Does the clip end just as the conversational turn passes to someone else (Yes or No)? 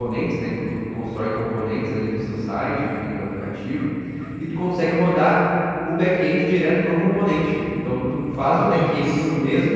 No